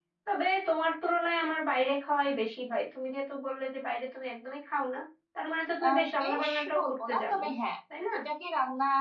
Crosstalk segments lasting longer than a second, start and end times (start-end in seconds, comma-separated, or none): 5.9-7.4